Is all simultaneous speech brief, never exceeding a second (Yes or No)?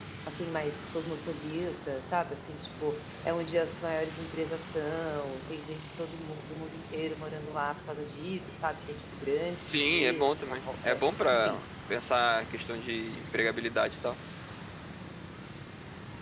No